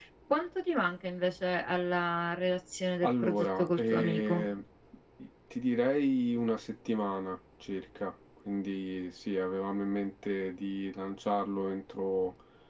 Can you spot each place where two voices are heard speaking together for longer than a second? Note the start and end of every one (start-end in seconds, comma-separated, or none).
3.0-4.4